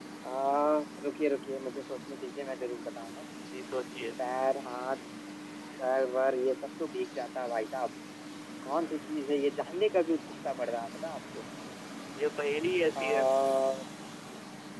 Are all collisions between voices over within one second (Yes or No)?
Yes